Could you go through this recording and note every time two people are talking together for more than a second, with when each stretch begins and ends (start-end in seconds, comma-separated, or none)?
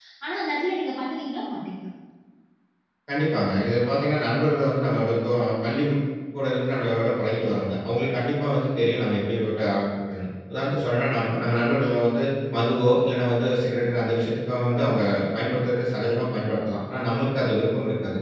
none